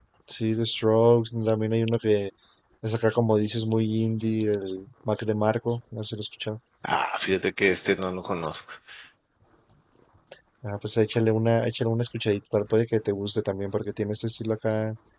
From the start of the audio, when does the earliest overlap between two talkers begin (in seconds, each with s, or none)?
none